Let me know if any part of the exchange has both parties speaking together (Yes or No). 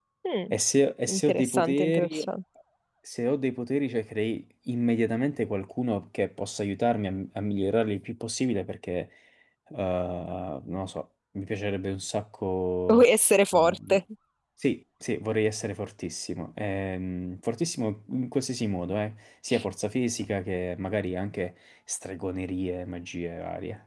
Yes